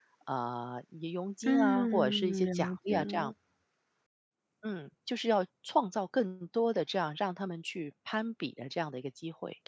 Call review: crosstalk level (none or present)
present